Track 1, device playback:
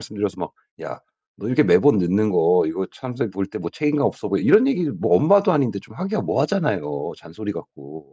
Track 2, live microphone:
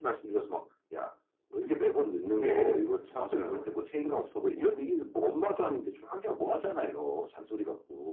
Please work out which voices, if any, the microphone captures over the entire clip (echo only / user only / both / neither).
both